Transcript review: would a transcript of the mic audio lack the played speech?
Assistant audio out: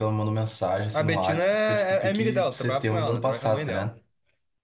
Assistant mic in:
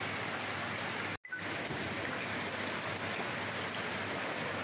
Yes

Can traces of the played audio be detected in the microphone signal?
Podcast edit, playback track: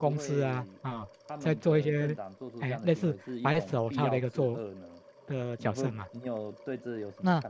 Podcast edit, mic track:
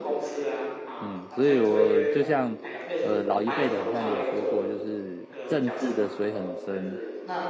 Yes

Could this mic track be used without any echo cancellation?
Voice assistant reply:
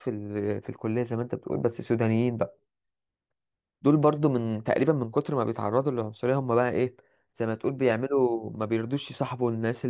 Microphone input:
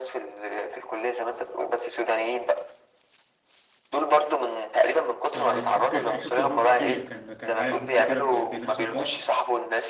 No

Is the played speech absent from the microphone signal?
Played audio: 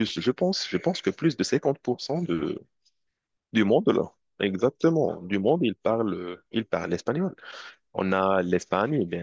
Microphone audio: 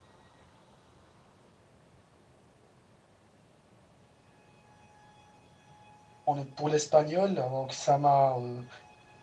Yes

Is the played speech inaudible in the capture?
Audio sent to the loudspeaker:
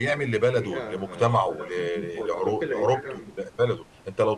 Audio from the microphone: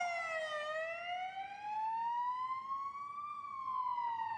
Yes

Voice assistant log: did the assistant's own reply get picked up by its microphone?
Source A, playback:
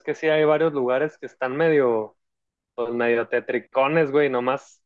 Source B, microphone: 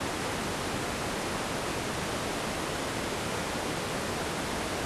No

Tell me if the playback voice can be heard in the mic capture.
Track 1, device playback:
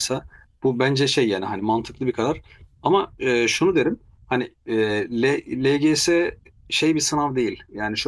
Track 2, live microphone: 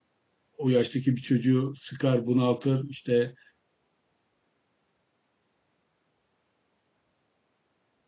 No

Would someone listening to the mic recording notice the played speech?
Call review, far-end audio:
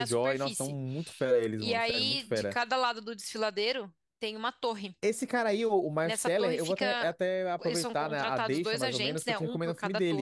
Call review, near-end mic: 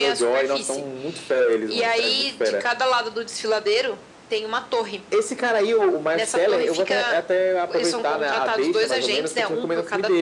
Yes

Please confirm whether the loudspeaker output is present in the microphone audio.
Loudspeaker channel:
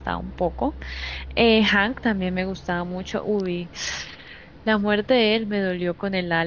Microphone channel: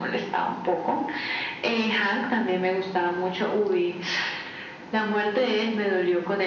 Yes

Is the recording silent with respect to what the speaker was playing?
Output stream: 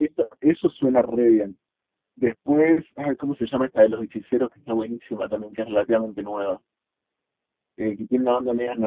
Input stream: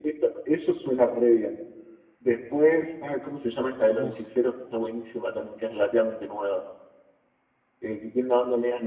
No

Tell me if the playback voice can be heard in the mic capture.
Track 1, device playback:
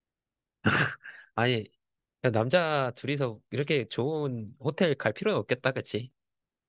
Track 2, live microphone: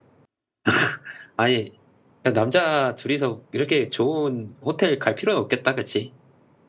Yes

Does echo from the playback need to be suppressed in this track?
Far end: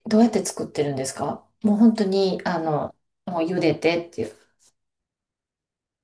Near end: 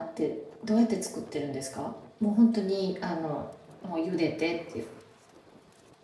Yes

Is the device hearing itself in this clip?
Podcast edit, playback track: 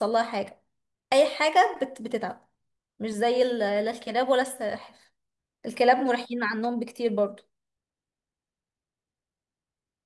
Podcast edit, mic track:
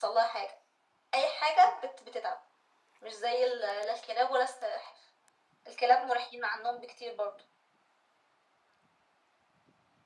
Yes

